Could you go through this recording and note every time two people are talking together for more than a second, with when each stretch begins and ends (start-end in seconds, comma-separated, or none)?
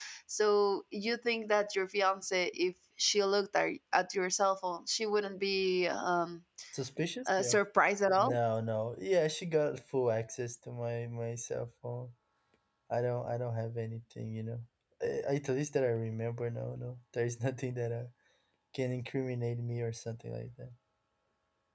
none